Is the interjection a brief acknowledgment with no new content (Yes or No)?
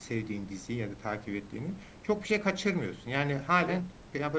Yes